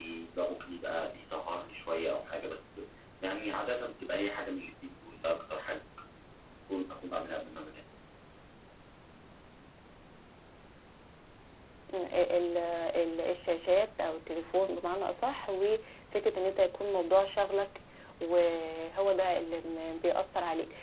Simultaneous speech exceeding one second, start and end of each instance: none

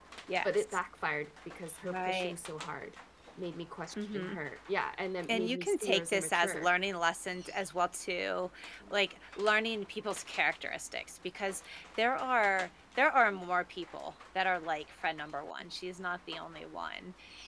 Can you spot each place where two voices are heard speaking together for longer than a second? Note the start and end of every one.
5.3-6.7

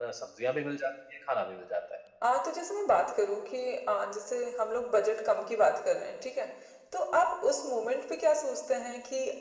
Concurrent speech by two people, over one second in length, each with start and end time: none

